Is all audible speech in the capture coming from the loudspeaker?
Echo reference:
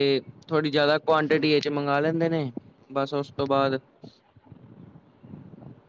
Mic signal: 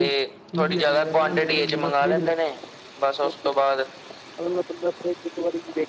No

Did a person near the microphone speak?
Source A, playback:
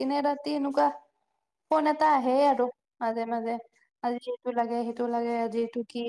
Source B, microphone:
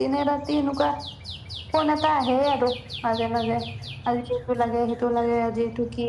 No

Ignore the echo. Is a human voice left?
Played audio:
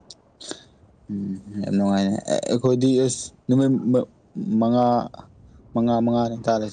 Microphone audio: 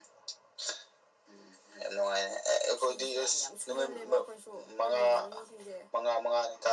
Yes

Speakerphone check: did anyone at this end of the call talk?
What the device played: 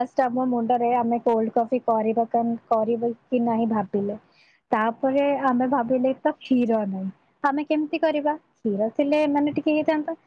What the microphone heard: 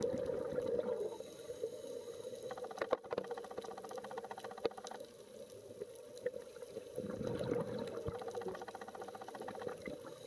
No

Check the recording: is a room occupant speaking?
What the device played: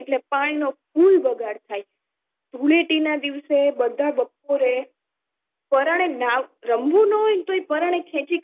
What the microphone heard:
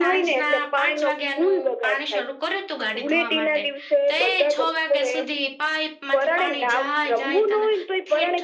Yes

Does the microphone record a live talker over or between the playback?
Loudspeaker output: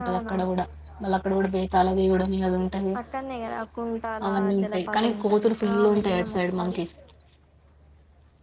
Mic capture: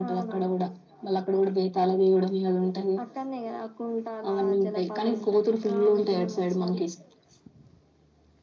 No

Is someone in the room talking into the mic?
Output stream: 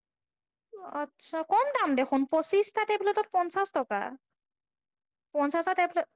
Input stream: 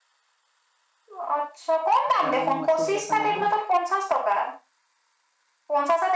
Yes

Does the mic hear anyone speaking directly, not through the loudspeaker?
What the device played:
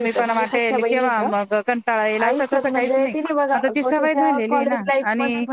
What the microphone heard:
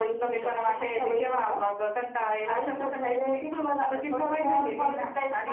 No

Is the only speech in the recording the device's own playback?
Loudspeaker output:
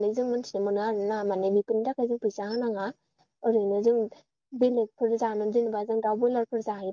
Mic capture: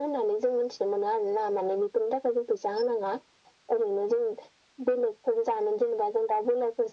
Yes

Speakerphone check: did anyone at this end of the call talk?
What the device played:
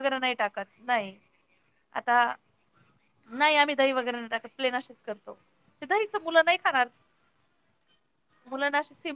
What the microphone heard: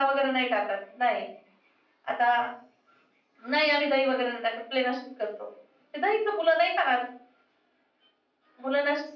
No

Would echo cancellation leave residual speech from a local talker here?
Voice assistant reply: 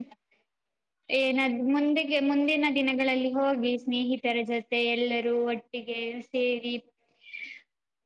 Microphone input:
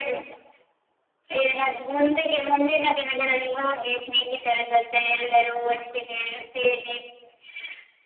No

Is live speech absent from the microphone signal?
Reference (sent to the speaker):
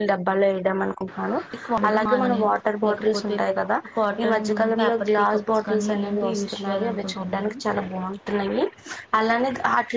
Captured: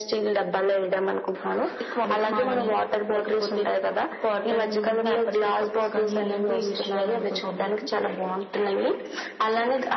Yes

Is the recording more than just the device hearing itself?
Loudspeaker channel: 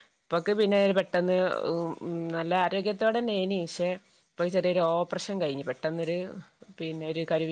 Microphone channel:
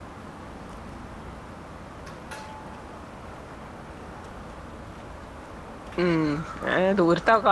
Yes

